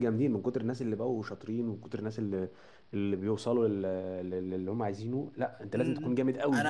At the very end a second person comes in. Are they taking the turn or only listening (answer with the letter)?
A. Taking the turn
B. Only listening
A